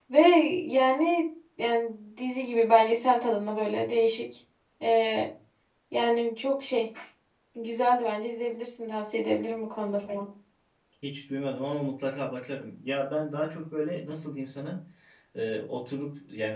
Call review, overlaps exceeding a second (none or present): none